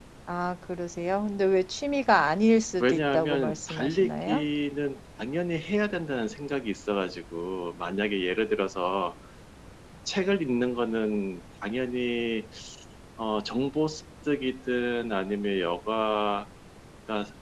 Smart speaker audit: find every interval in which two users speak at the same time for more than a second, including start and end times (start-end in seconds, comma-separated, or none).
2.8-4.5